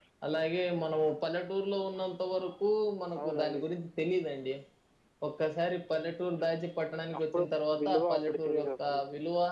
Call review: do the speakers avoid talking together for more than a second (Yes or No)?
No